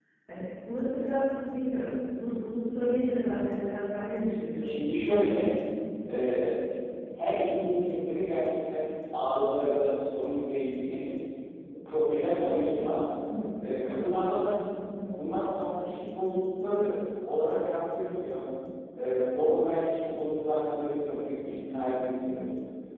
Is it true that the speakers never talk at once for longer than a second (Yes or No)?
Yes